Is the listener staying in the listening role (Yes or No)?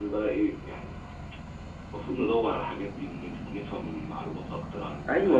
No